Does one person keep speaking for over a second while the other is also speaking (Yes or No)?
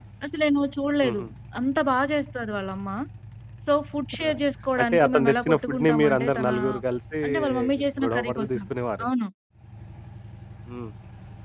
Yes